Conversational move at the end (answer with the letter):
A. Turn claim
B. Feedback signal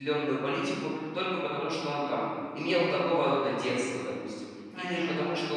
B